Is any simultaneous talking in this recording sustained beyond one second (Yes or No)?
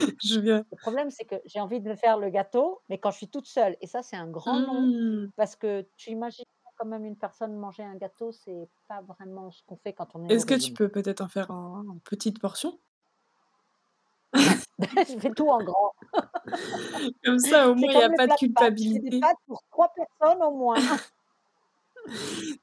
Yes